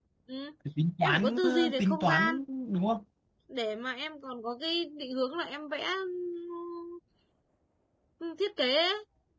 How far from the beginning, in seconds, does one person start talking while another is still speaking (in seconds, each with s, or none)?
1.0 s